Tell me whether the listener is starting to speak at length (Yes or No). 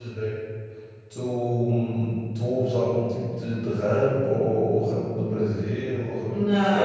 Yes